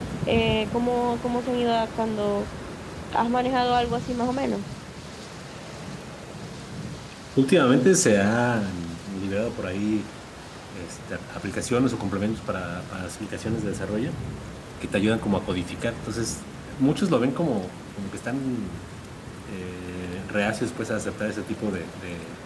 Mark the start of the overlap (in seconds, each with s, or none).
none